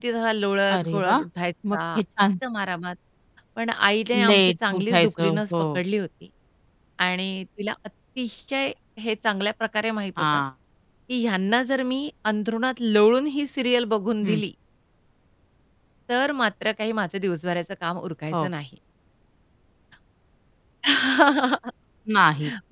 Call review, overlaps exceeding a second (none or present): present